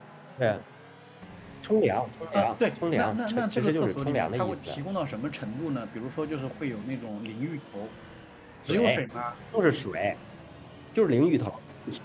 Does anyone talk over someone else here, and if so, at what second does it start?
2.3 s

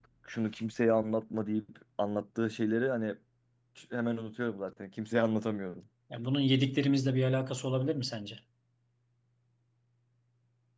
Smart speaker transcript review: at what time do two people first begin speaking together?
none

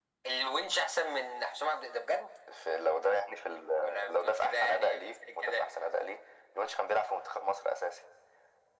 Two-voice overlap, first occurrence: 3.8 s

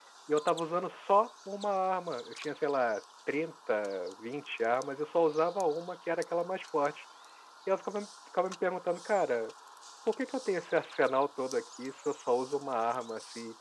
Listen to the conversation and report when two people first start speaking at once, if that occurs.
none

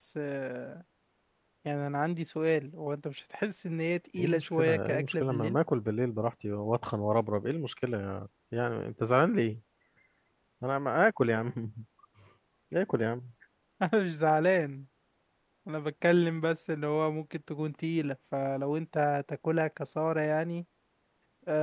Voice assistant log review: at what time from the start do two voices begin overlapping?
4.2 s

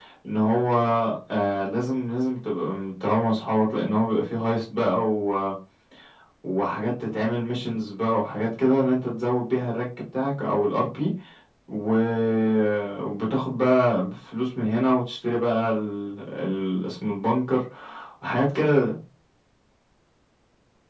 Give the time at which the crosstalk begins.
none

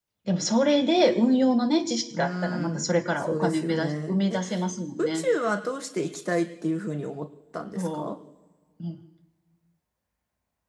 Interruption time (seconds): 2.1 s

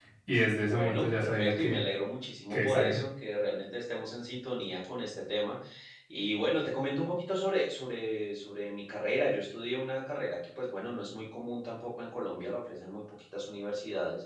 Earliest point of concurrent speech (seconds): 0.6 s

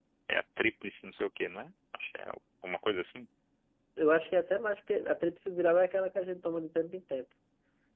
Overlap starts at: none

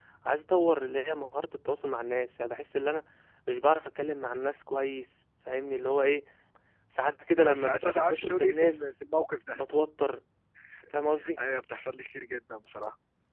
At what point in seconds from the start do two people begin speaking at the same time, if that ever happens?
7.4 s

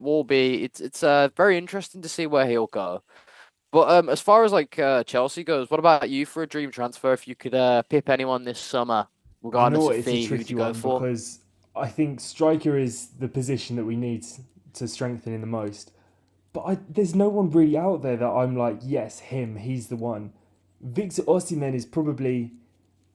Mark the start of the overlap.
9.5 s

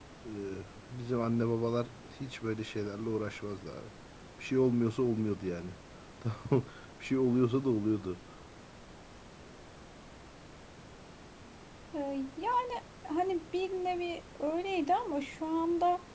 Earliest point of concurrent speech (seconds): none

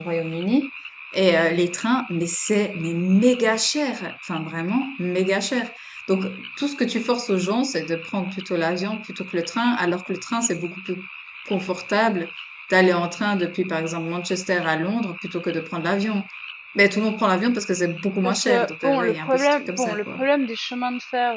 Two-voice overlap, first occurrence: 18.2 s

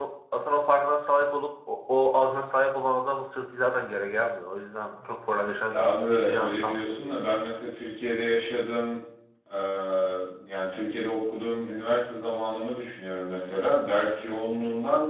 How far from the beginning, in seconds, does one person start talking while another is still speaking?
5.7 s

